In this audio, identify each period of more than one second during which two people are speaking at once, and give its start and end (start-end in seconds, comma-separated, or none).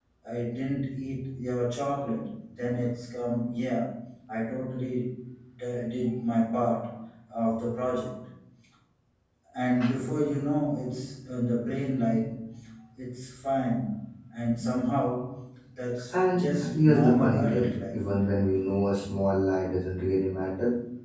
16.1-18.0